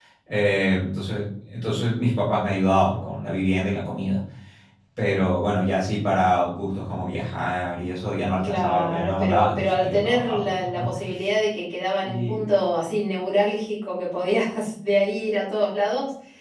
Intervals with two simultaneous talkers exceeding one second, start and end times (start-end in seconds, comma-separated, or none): 8.4-10.9